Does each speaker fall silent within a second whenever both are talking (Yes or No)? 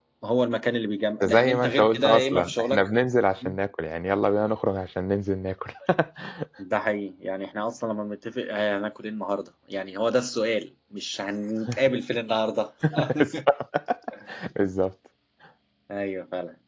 No